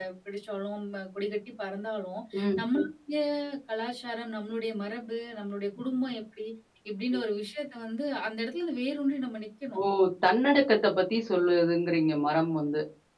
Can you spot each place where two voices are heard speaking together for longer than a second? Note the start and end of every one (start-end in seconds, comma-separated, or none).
none